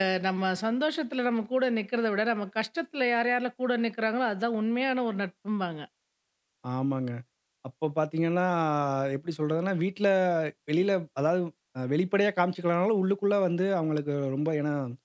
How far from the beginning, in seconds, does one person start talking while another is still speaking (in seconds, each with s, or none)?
none